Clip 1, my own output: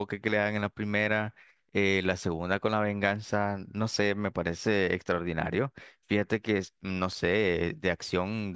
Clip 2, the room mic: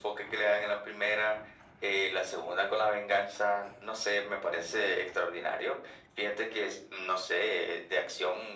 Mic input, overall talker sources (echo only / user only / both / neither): echo only